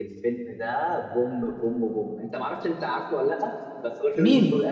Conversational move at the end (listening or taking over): taking over